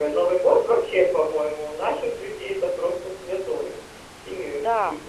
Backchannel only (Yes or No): No